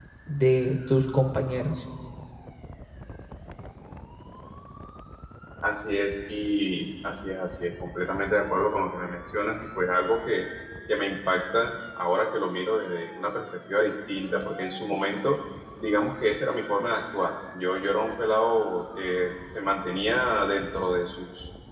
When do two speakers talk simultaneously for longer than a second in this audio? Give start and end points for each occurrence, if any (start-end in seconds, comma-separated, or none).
none